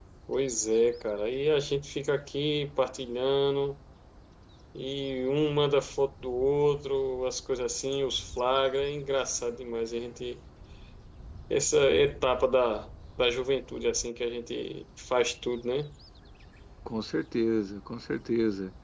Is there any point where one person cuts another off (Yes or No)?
No